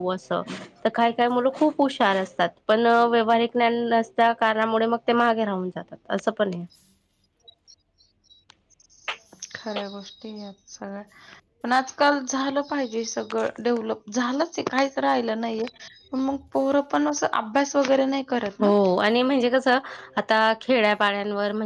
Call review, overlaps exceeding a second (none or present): none